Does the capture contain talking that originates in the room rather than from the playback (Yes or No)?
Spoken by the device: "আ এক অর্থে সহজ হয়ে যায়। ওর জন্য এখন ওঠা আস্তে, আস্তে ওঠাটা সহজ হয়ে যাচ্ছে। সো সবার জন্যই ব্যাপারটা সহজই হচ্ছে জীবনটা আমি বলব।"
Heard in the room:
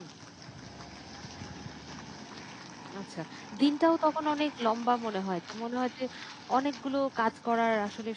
Yes